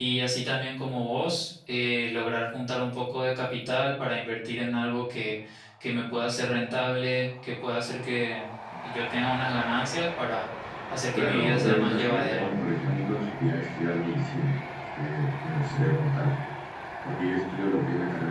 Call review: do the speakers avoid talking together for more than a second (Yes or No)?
No